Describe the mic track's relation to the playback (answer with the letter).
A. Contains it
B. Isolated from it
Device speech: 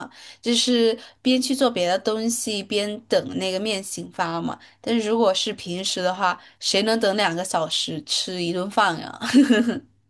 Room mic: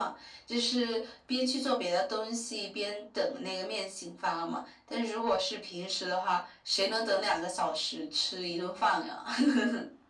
A